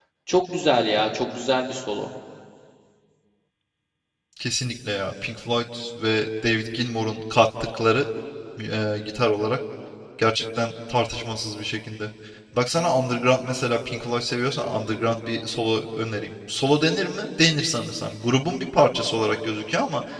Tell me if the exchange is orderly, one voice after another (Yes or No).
Yes